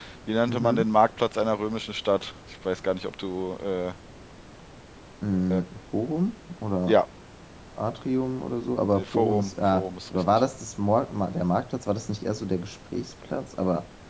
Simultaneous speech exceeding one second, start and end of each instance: 8.9-10.4

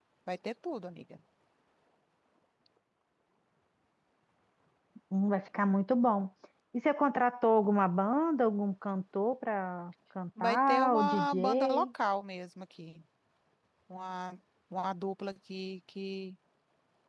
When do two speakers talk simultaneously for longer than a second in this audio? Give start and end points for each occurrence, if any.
10.4-11.8

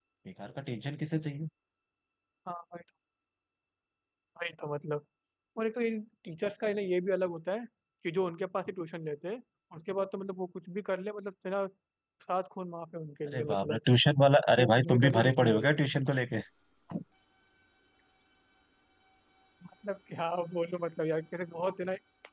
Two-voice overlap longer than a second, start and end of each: 14.6-15.9

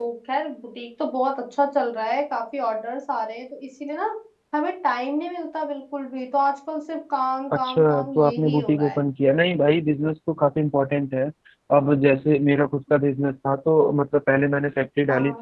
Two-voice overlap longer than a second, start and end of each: 7.5-9.0

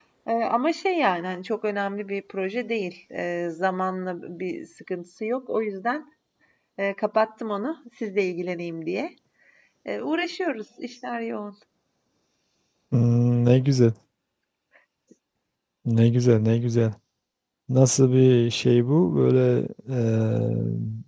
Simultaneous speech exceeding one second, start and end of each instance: none

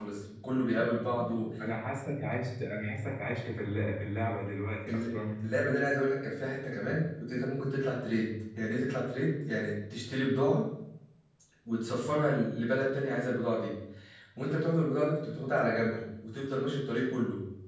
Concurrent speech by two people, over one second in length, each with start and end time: none

